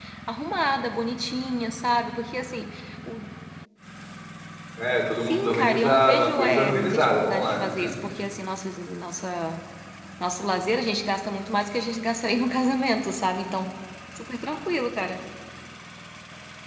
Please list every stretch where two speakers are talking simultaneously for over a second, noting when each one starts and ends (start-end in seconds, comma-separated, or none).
5.2-7.7